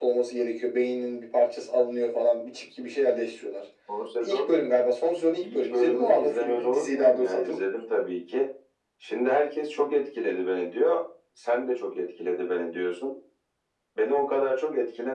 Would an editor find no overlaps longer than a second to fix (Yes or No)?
No